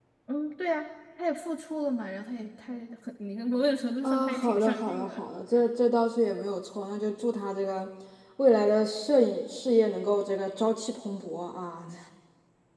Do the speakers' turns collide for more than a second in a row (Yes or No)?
Yes